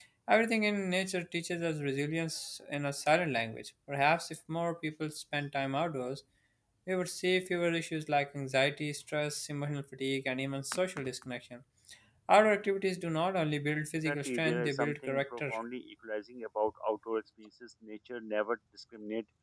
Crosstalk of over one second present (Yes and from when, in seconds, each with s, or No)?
Yes, from 14.0 s